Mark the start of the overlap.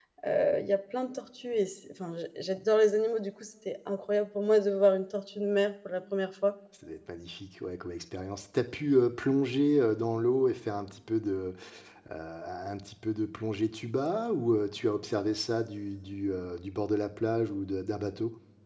none

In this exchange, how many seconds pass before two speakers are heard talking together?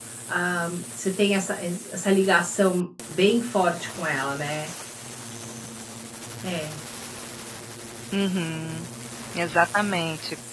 none

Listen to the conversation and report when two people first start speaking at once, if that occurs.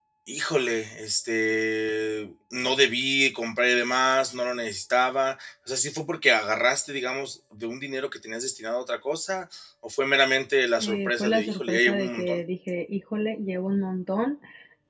10.8 s

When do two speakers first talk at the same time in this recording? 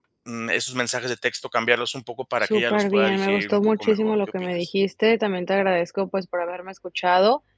2.4 s

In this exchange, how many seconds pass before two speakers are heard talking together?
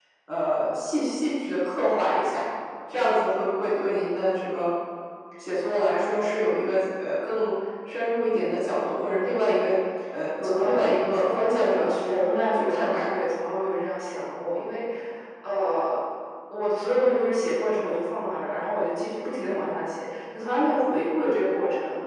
10.4 s

